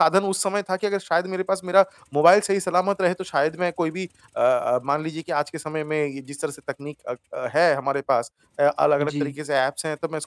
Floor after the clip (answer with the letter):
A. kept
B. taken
A